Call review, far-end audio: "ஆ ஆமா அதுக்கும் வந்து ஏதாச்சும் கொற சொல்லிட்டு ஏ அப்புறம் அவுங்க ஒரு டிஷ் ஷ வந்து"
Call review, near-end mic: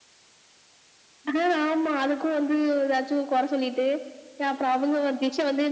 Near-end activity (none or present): none